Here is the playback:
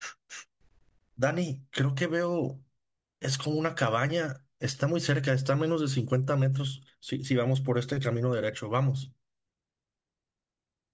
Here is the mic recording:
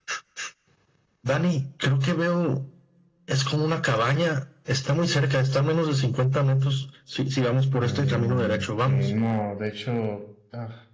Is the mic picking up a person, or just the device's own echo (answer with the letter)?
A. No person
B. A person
B